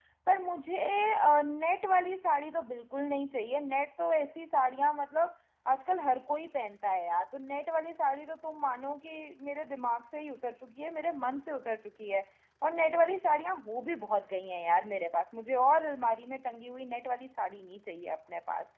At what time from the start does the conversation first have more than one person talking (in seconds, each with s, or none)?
none